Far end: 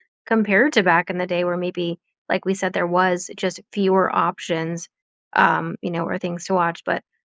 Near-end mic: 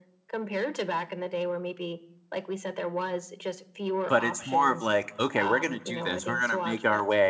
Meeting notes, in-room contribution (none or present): present